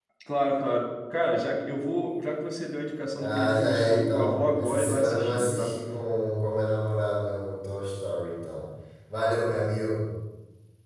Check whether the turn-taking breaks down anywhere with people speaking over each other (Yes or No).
Yes